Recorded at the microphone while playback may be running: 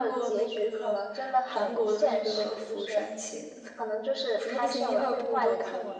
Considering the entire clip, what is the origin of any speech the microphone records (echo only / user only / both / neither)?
echo only